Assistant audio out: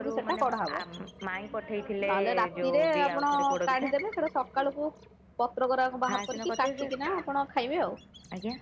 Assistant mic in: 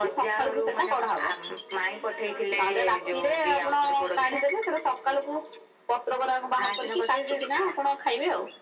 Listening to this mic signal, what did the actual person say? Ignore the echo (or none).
none